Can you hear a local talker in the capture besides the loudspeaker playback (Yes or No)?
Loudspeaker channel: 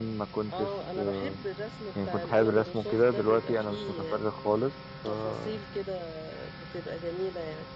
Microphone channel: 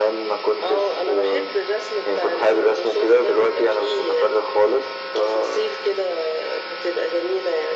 No